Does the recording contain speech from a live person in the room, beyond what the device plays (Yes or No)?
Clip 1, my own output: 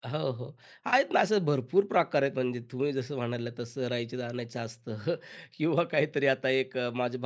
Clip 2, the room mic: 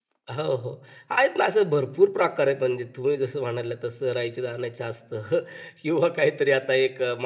No